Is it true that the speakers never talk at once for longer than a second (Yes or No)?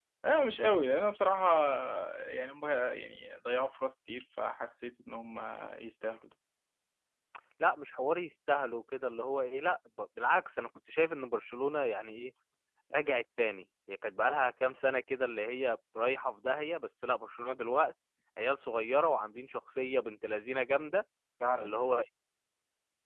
Yes